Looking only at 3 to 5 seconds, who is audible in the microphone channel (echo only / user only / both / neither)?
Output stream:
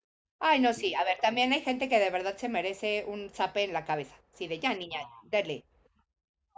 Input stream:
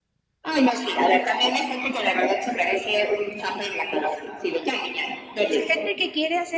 echo only